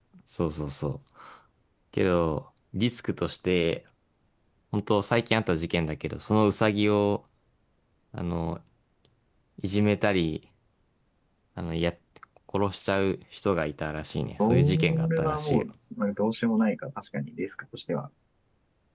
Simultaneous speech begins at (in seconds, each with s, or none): 14.4 s